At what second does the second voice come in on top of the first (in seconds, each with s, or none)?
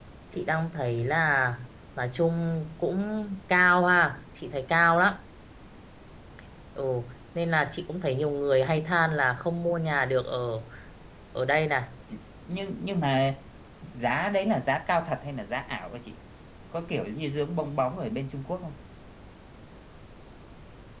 none